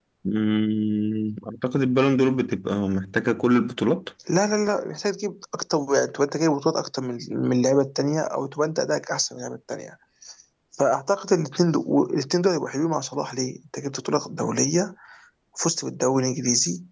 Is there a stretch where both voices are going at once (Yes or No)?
No